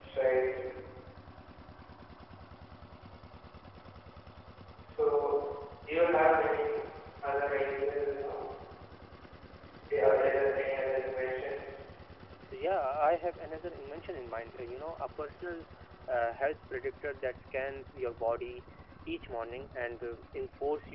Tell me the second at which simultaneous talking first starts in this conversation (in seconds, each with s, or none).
none